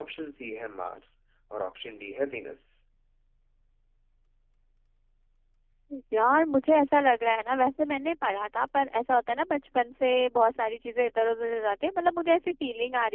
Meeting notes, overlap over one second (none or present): none